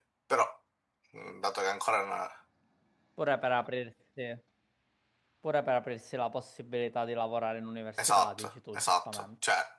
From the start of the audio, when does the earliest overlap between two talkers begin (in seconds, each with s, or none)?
8.0 s